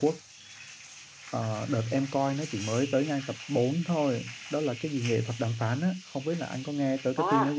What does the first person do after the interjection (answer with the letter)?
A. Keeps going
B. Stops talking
B